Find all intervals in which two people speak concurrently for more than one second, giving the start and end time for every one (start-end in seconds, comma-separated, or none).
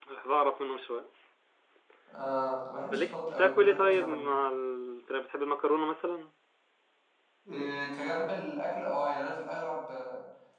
2.9-4.2